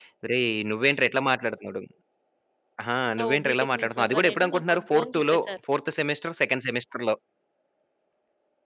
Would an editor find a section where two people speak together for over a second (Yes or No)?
Yes